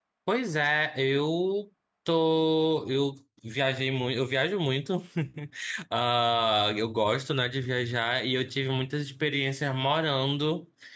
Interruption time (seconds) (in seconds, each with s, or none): none